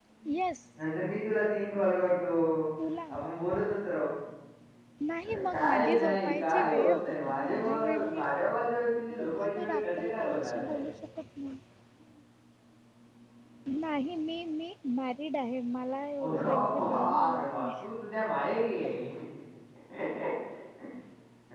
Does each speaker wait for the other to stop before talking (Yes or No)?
No